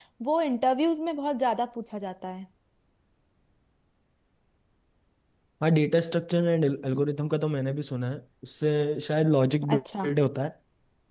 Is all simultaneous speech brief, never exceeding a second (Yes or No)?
Yes